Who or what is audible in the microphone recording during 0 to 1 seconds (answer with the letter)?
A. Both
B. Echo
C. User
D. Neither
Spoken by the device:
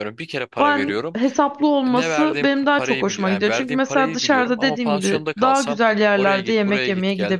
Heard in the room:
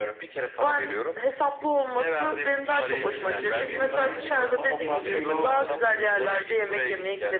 B